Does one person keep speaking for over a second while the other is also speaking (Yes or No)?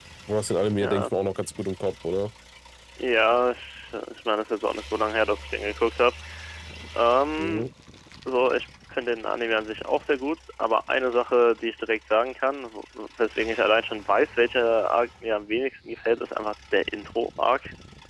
No